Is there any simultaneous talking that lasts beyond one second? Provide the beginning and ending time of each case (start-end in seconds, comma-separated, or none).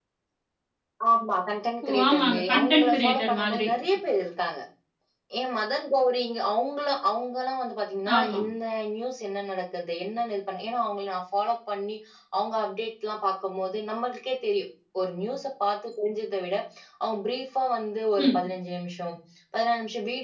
1.9-3.7